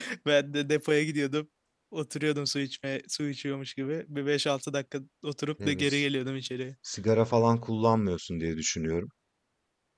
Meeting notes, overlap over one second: none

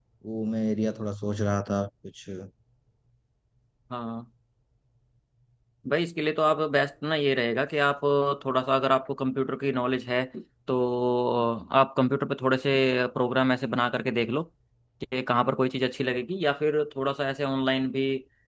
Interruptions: none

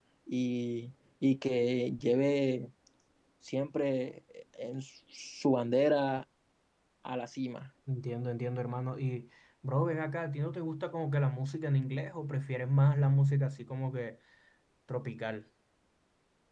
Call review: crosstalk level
none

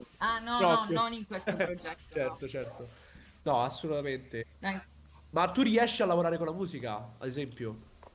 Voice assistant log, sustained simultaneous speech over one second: none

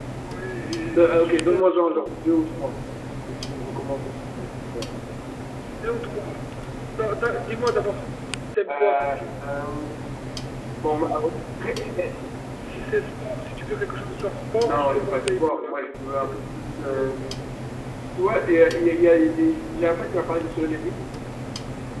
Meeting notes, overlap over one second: present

